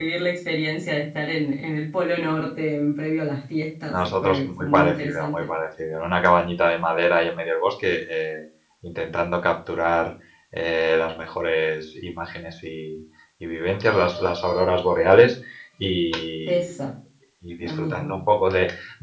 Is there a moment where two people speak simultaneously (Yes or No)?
Yes